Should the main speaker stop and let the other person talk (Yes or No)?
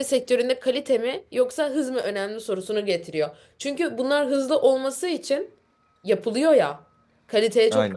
No